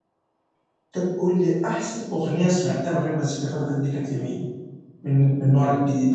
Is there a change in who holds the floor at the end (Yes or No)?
Yes